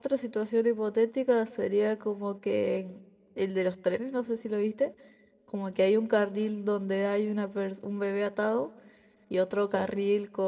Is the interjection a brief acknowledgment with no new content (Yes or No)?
Yes